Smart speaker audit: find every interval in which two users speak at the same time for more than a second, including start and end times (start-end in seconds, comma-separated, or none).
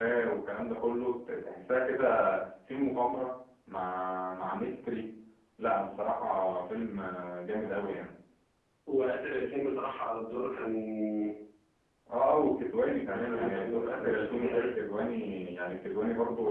13.0-14.7